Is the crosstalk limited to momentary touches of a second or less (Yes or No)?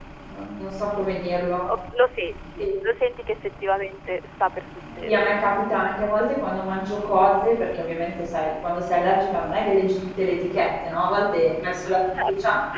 Yes